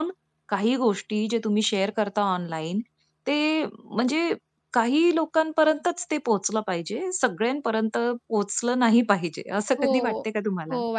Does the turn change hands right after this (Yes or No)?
Yes